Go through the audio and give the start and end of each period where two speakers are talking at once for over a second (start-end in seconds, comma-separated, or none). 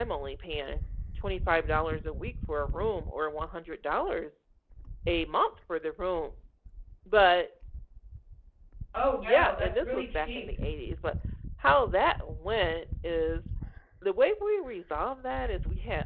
9.2-10.5